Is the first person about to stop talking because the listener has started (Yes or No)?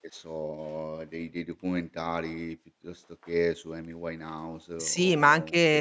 Yes